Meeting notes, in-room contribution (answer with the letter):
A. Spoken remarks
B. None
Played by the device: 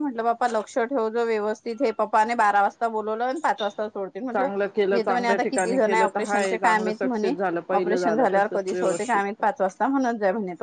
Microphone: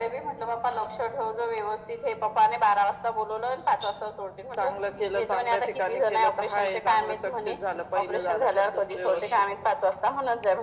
B